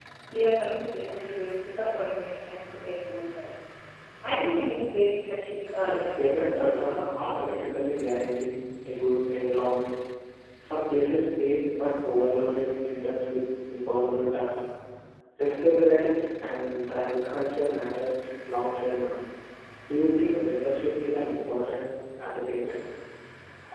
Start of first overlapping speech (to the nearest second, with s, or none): 6 s